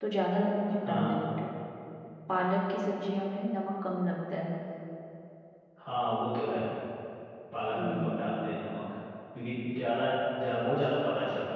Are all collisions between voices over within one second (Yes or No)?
Yes